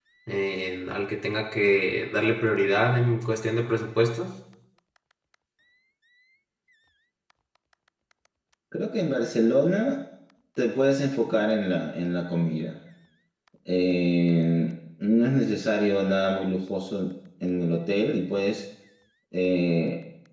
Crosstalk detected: No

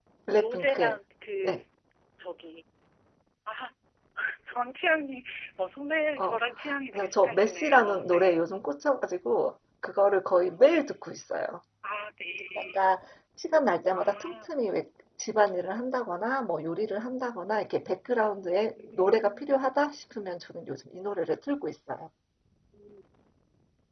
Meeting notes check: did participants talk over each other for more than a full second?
Yes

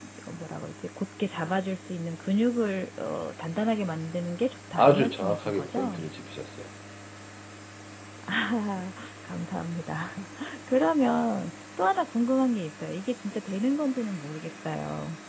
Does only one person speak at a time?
No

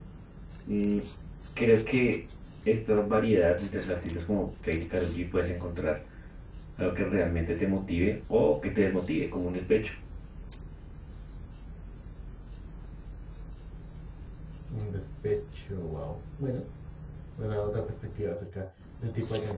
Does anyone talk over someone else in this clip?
No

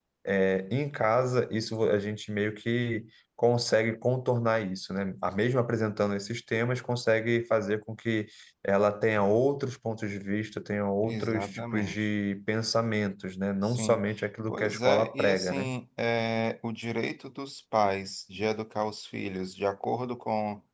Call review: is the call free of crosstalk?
No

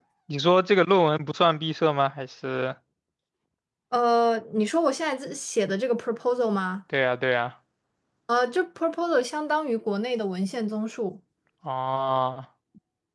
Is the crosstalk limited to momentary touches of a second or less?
Yes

